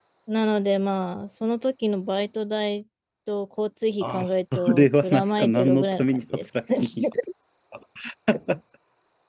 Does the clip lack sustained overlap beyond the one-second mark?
No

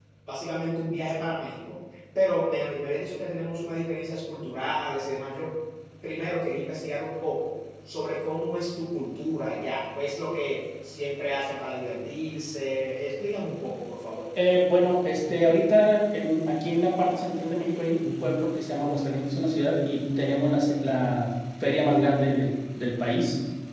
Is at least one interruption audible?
No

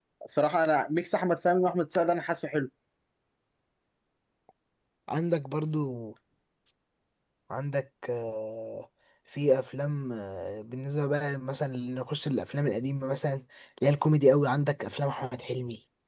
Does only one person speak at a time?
Yes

